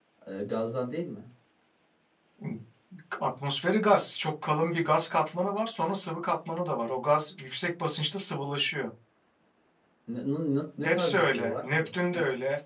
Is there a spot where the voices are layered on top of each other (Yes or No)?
Yes